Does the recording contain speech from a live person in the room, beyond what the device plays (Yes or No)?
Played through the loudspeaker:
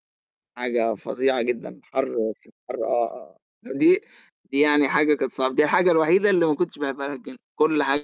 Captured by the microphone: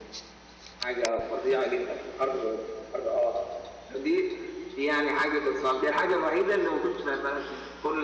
No